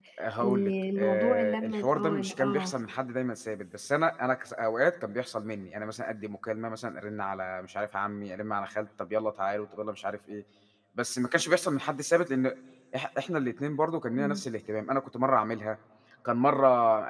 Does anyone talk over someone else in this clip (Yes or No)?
Yes